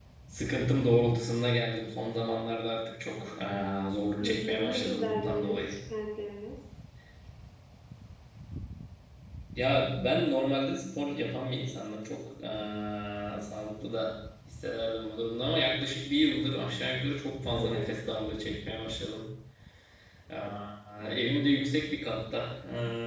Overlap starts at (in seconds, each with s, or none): 4.2 s